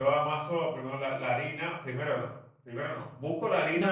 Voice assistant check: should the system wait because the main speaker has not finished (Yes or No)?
No